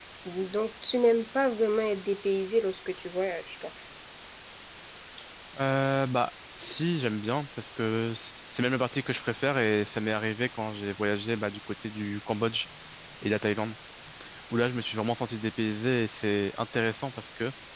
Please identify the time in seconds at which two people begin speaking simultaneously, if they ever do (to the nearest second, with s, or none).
none